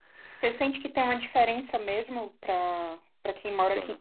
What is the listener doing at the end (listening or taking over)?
listening